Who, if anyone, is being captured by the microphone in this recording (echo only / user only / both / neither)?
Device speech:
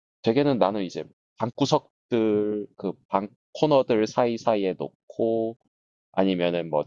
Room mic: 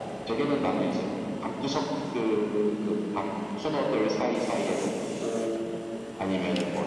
echo only